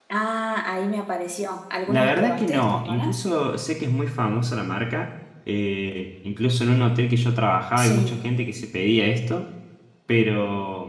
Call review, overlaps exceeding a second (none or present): present